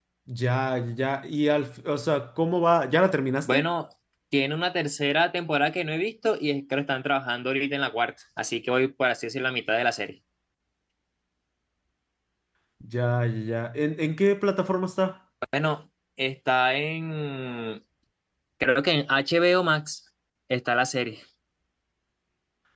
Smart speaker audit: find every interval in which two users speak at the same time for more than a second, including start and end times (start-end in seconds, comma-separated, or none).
none